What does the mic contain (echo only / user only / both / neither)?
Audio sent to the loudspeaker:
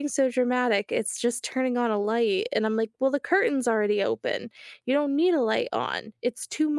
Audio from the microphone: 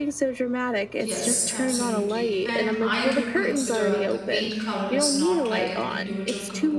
both